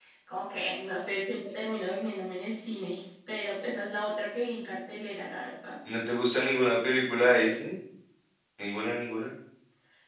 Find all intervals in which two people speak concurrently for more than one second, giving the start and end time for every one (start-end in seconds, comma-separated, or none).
none